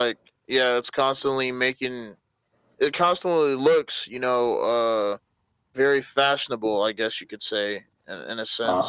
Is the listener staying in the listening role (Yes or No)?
Yes